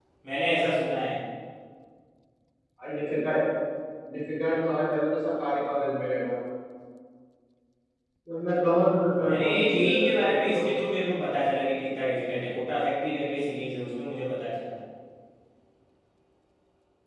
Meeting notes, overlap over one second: present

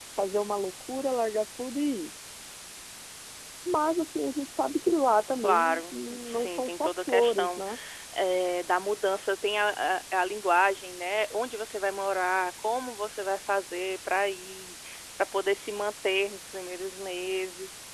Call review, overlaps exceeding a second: present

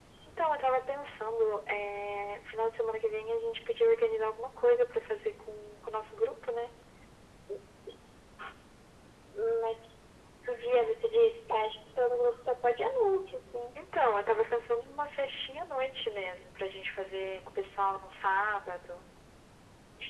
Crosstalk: none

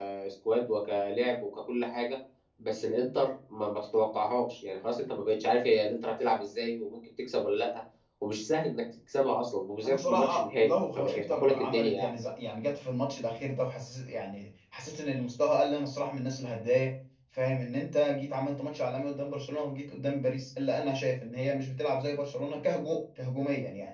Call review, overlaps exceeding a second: present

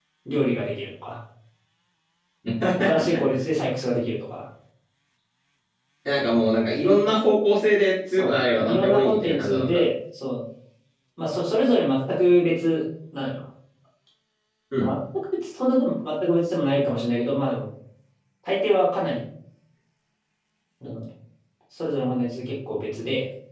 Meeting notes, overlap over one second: present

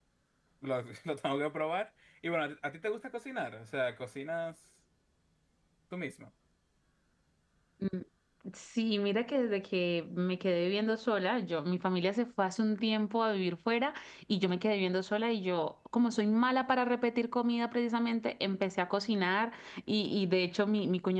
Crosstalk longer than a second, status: none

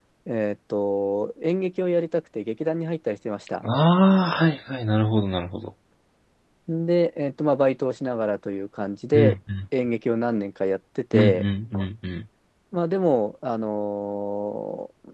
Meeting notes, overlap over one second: none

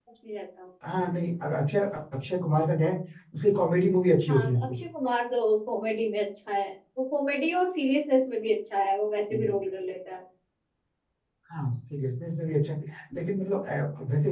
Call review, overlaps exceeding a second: none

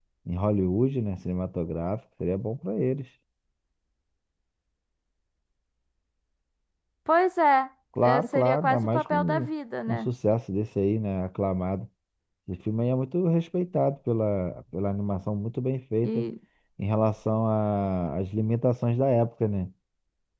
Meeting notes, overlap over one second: present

